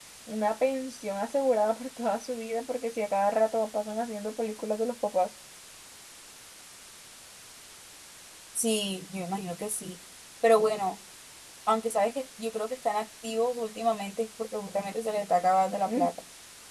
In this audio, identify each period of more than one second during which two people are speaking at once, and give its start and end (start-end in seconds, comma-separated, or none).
none